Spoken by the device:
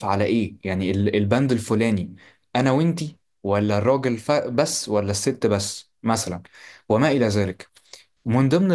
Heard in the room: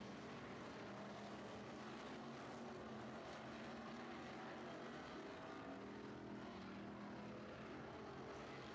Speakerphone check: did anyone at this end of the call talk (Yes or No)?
No